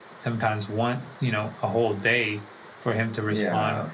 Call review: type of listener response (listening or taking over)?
listening